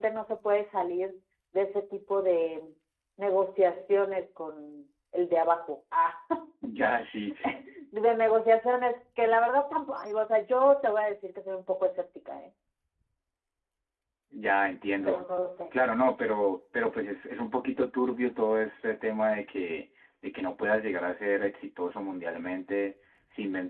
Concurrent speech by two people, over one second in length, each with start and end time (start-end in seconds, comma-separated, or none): none